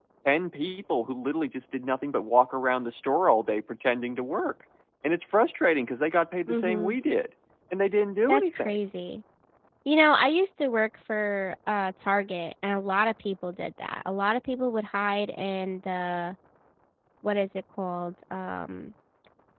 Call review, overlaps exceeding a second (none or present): none